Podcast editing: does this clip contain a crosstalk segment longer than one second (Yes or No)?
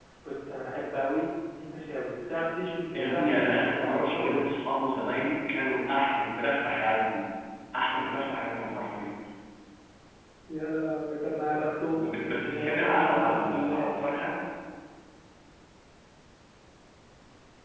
Yes